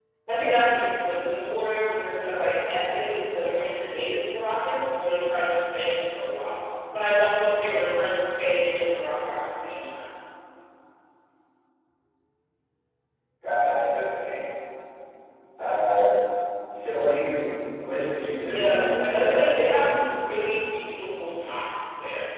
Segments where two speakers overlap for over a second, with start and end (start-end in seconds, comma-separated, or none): 18.4-19.8